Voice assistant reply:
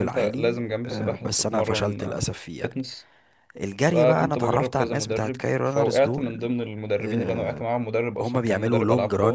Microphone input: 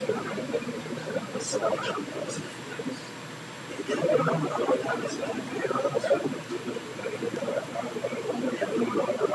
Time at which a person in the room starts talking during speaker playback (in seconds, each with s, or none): none